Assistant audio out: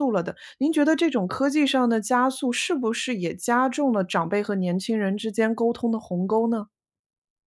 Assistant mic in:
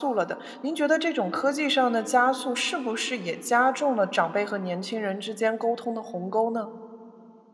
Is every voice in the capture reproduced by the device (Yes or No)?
Yes